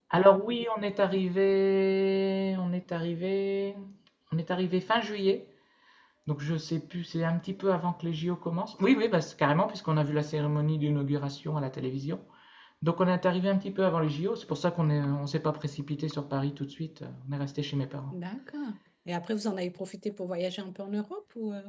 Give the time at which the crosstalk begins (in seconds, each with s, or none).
none